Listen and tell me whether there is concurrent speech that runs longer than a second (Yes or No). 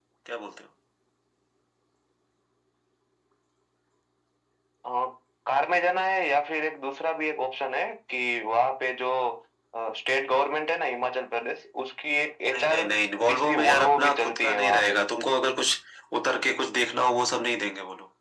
Yes